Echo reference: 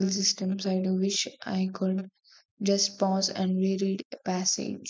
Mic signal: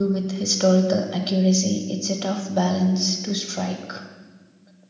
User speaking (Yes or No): Yes